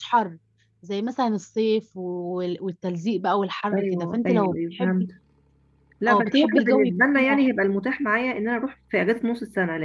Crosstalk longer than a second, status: present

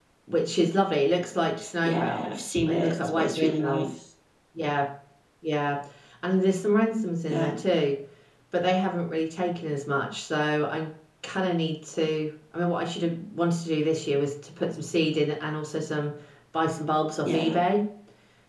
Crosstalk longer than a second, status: present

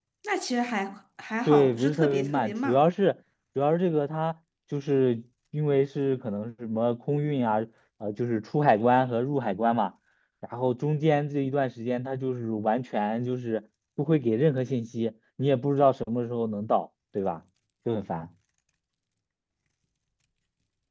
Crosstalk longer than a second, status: present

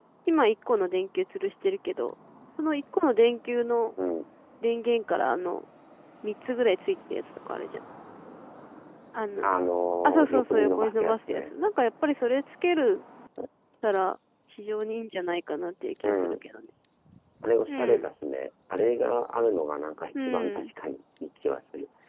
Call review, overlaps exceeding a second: present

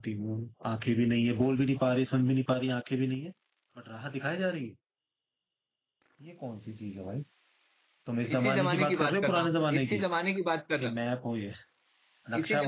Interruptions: present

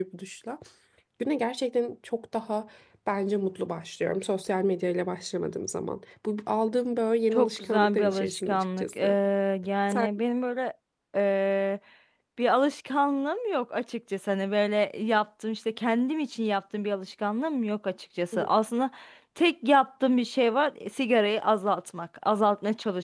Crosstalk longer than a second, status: present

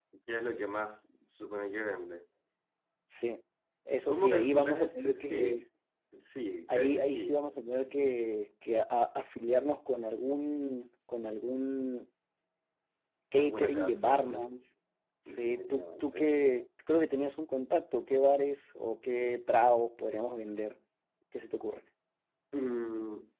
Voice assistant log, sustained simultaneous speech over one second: present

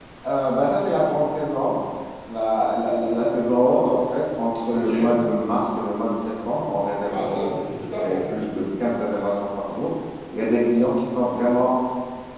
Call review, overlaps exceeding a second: present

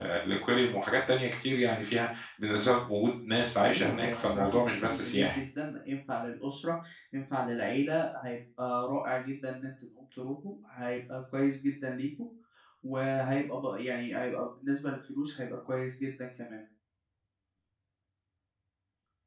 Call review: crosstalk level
present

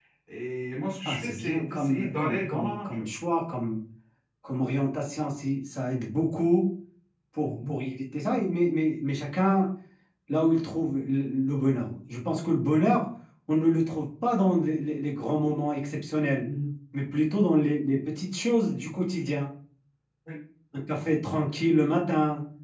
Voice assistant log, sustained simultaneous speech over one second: present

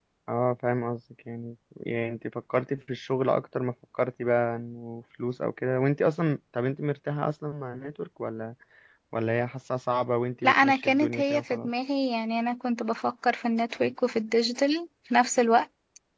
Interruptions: present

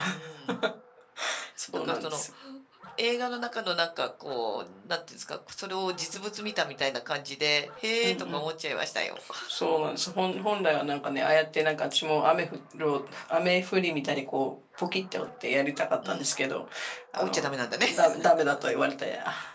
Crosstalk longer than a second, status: none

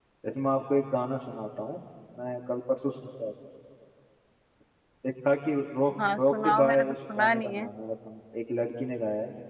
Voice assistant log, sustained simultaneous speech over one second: present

